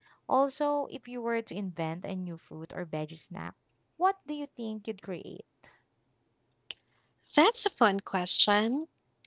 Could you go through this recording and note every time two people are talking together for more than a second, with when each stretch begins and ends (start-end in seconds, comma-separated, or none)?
none